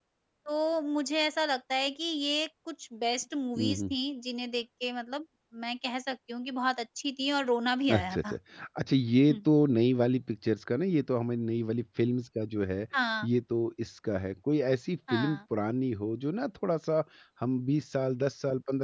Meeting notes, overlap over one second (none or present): none